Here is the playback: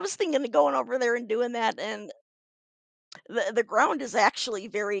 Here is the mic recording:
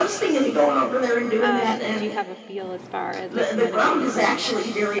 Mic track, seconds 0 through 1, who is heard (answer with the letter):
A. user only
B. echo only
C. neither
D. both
B